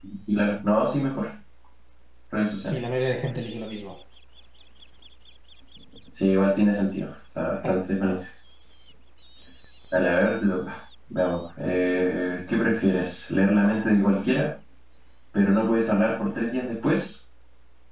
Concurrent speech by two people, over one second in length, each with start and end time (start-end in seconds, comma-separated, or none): none